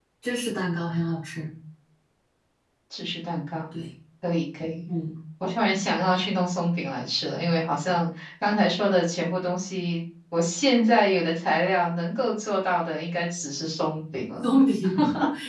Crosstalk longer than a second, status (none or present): none